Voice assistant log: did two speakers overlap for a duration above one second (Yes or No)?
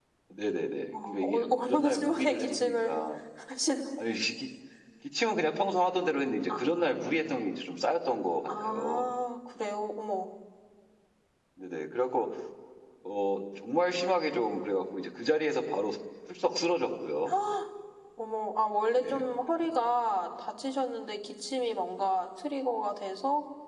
Yes